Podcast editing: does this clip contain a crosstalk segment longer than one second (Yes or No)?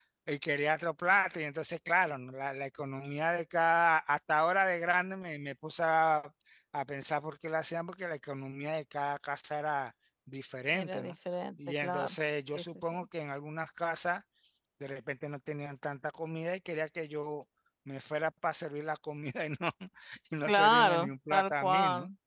Yes